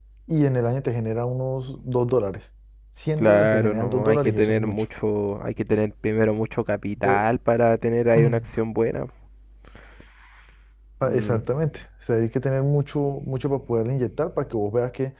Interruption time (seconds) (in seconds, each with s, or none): 3.2 s